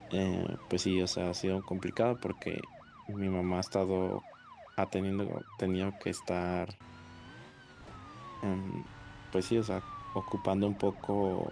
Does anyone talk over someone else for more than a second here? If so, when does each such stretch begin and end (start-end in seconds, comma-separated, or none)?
none